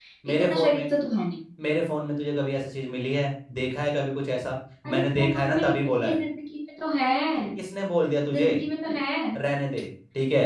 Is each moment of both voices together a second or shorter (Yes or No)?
No